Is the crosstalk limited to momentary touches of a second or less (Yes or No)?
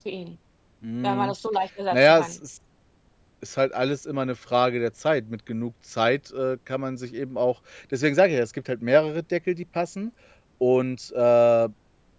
Yes